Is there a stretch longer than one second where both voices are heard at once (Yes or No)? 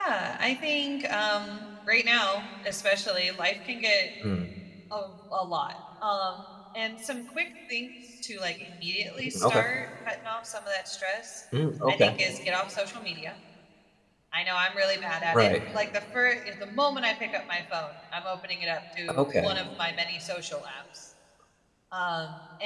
No